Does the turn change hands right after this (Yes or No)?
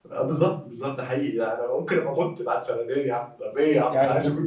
Yes